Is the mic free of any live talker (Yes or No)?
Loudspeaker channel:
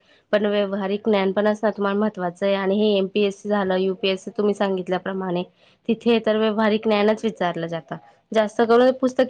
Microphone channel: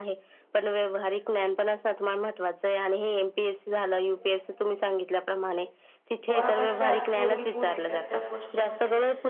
No